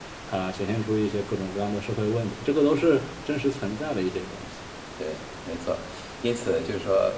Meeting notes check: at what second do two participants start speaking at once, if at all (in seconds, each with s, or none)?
none